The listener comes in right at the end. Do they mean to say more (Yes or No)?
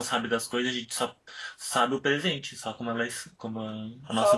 Yes